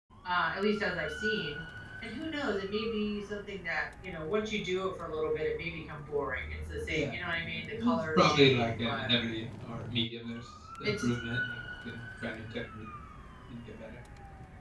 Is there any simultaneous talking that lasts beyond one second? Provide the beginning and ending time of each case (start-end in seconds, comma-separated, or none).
7.8-9.1